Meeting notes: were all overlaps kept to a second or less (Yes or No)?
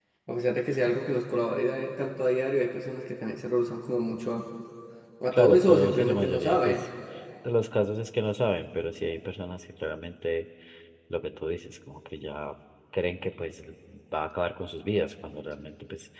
No